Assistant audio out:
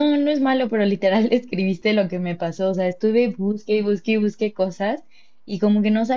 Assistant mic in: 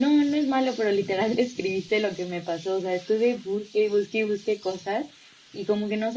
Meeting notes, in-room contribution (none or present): none